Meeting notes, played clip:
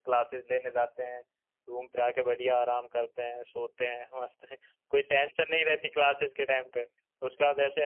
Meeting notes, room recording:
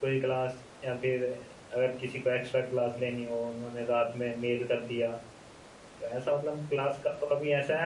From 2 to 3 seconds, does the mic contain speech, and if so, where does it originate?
user only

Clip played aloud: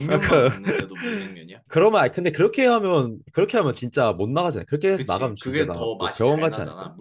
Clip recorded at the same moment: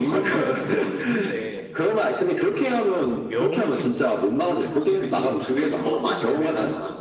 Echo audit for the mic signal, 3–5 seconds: both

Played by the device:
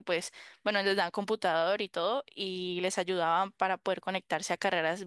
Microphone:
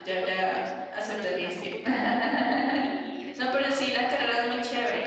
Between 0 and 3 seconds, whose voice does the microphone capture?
both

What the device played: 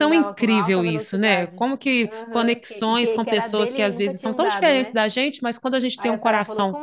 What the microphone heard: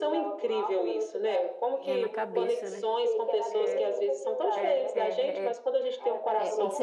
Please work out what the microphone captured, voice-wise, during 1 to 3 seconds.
both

